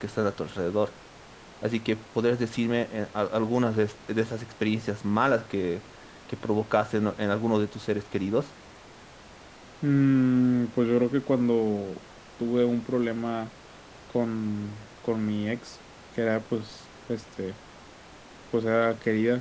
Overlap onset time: none

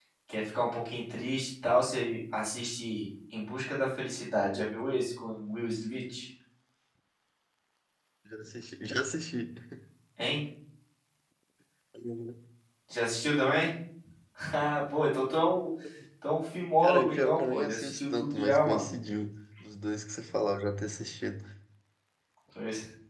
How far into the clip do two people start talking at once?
16.8 s

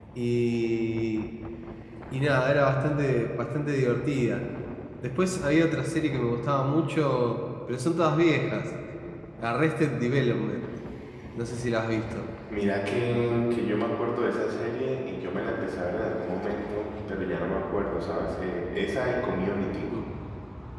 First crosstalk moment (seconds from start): none

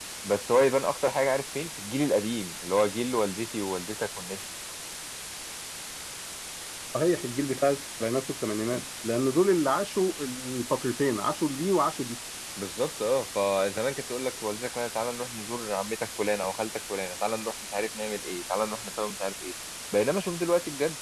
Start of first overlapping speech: none

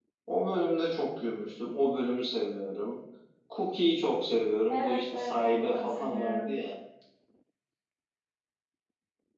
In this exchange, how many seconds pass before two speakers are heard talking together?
4.7 s

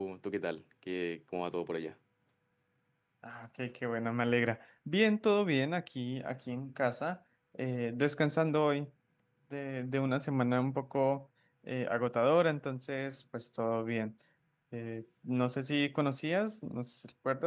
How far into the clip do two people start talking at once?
none

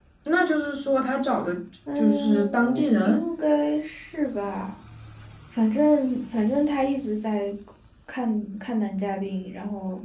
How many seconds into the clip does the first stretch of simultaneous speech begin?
2.0 s

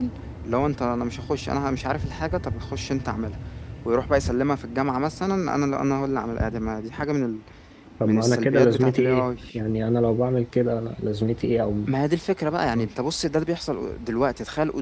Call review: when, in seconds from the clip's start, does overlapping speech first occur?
8.0 s

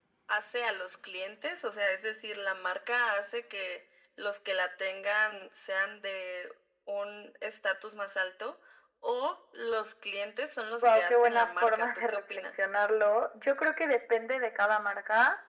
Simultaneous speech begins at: 10.8 s

